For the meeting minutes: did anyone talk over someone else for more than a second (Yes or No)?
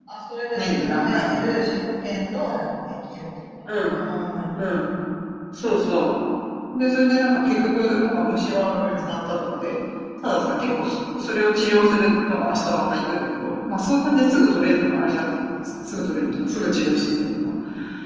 Yes